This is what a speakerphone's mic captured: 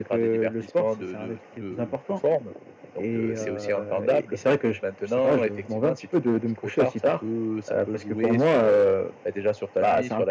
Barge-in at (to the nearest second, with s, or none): none